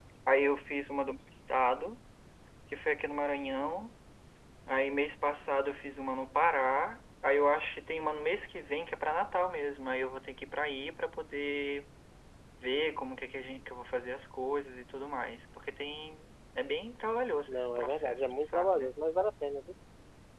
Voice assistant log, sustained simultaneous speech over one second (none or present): present